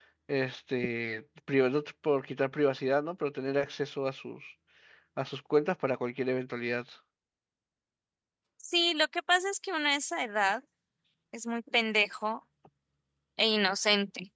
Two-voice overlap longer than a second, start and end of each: none

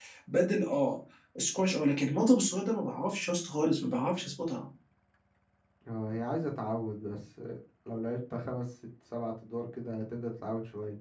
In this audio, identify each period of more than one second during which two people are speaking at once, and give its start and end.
none

